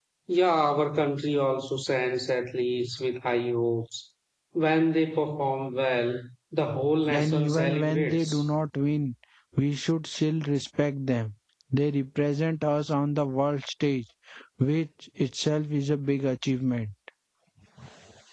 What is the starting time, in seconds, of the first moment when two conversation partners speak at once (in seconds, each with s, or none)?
7.1 s